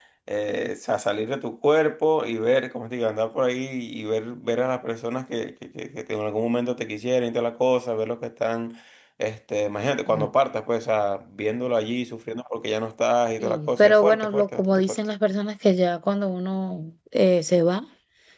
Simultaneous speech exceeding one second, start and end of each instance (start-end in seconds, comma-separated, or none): 13.4-15.0